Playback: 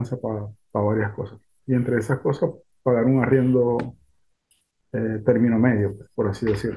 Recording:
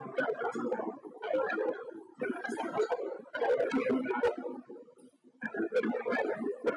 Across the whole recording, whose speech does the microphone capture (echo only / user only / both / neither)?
echo only